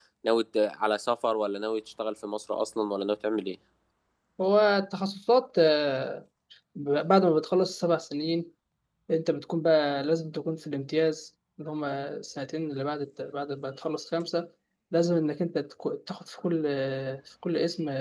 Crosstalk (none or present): none